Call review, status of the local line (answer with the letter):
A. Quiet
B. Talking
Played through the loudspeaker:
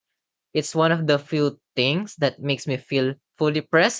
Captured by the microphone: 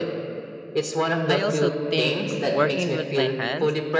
B